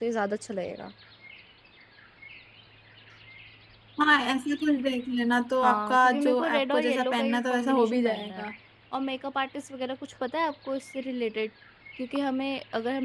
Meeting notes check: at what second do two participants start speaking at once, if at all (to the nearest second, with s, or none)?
6 s